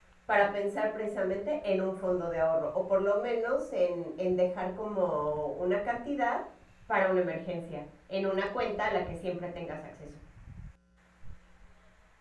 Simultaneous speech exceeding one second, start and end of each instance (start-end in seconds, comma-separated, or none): none